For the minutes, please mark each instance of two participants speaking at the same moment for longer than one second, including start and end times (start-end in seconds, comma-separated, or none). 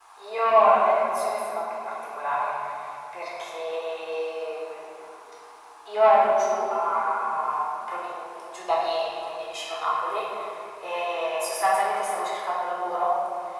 none